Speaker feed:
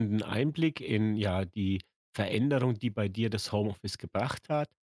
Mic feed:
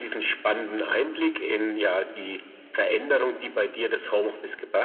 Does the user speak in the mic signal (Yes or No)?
No